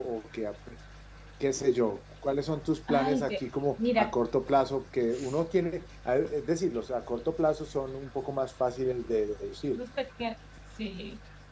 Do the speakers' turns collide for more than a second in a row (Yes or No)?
No